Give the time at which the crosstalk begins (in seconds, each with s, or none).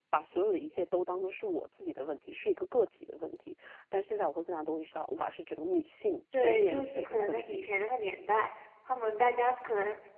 6.3 s